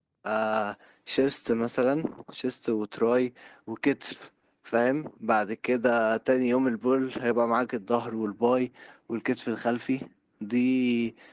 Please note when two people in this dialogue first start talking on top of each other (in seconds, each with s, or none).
none